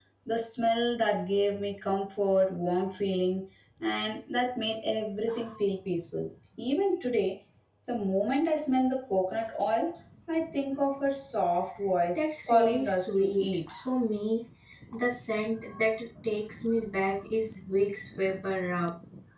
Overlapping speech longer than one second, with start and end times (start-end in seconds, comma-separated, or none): 12.2-13.6